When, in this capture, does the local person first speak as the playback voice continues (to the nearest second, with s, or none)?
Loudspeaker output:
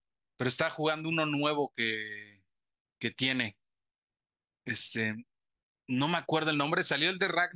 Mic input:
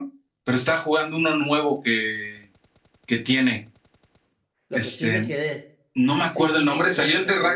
5 s